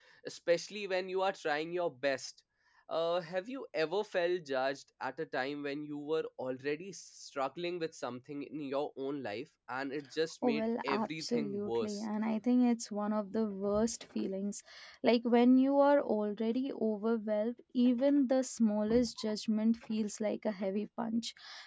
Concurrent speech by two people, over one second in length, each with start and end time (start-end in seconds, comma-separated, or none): 10.4-12.0